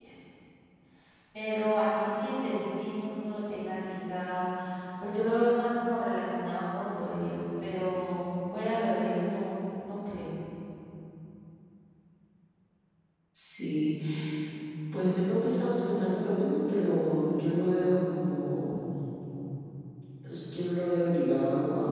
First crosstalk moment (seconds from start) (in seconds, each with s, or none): none